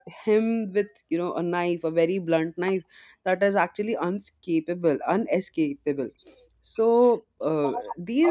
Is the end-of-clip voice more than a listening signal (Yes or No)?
No